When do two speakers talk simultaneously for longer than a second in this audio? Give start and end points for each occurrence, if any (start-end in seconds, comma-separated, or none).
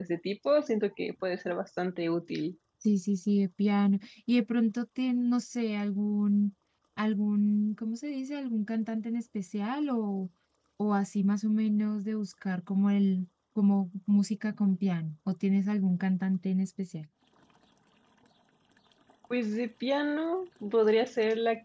none